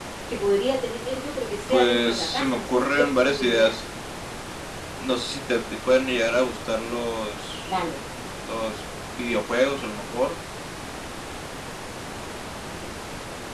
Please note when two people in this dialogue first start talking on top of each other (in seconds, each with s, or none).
1.7 s